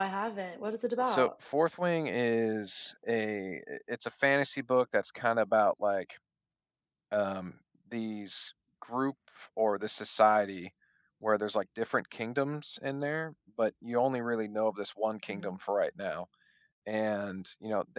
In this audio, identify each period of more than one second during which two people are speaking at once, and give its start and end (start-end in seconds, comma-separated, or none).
none